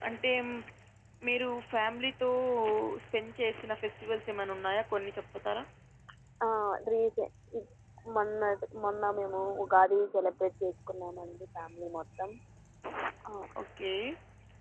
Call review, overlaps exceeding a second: none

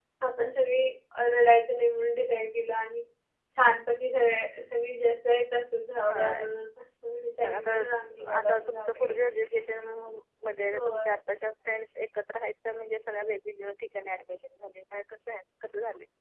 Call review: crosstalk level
present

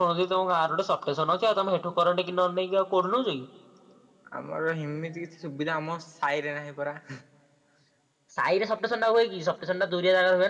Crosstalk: none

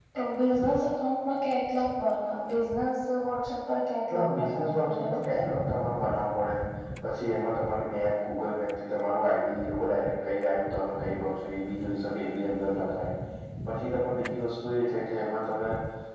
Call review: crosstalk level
present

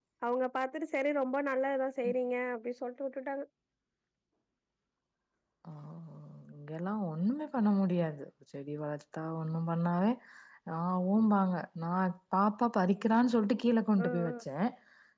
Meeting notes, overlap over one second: none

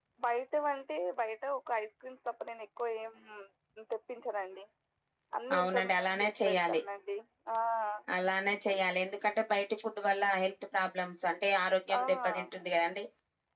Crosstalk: present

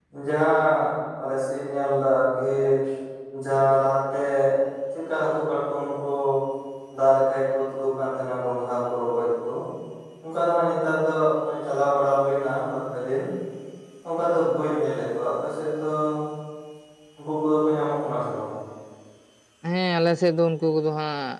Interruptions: none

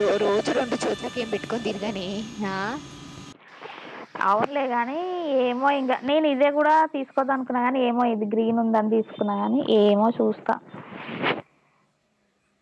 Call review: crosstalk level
none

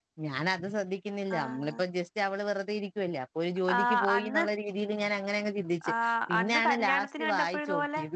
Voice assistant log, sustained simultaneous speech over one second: present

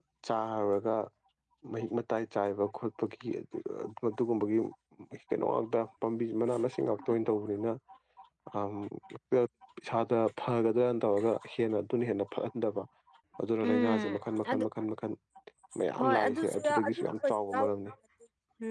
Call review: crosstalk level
present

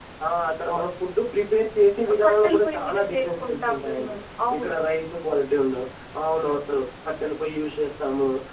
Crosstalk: present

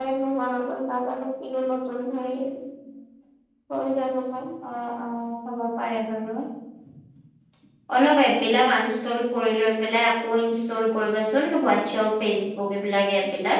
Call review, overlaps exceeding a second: none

